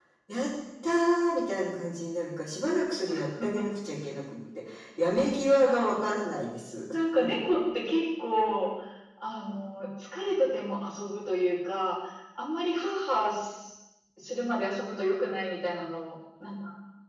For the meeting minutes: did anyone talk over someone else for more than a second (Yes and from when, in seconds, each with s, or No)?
No